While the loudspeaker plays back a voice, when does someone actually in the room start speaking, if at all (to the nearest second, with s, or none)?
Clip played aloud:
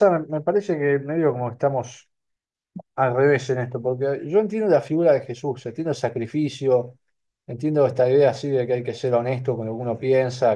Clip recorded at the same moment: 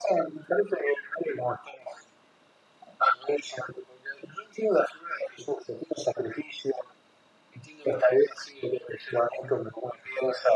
none